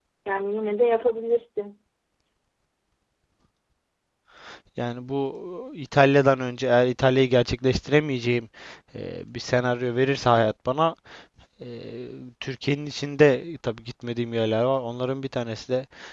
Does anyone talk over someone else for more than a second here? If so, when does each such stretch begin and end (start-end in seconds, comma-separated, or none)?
none